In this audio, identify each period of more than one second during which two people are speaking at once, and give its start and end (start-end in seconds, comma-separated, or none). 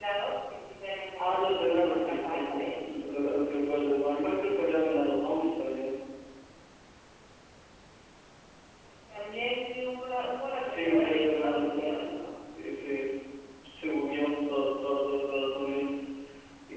1.2-3.0, 10.6-12.1